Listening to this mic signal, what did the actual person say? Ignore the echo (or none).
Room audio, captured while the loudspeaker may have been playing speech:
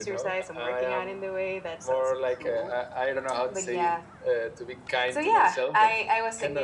none